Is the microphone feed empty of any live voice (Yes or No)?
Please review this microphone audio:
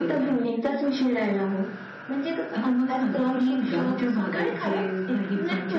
Yes